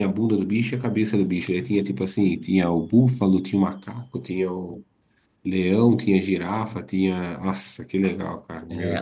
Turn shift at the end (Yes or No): Yes